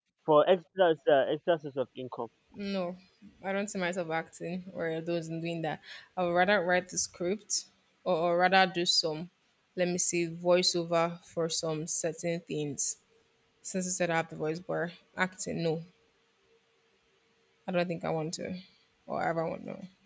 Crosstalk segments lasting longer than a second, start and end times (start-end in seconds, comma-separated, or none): none